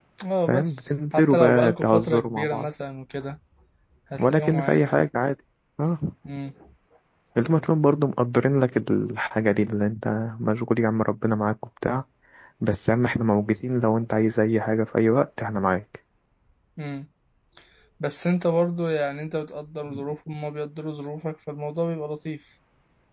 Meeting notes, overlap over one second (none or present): present